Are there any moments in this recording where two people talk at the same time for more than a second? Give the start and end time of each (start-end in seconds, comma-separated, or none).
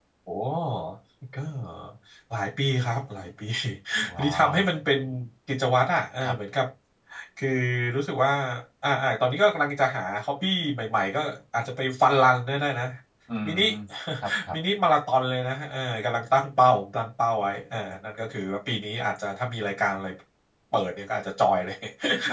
none